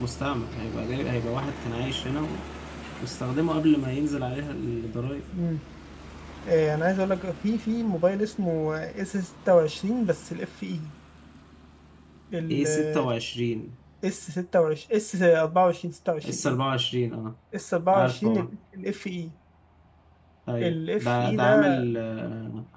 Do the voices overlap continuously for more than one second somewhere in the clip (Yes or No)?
Yes